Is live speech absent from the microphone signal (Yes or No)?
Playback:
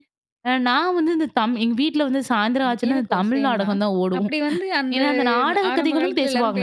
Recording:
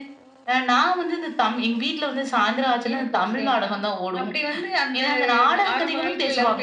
Yes